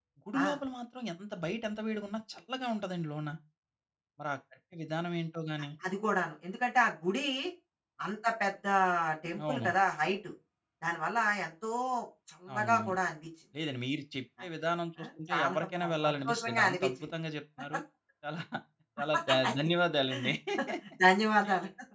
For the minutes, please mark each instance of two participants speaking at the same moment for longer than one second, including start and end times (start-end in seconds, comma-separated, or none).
15.0-16.9